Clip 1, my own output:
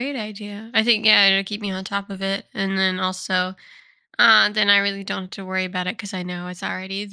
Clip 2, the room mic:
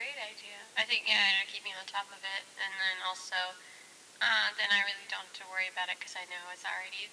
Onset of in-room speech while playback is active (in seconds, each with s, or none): none